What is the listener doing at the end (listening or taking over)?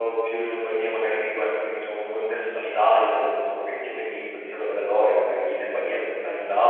taking over